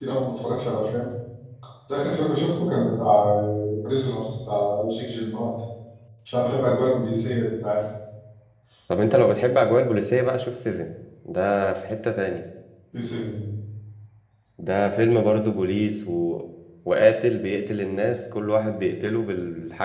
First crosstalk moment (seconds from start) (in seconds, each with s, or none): none